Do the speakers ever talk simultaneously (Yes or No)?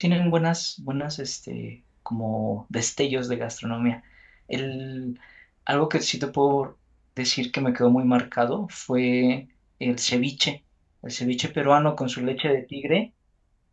No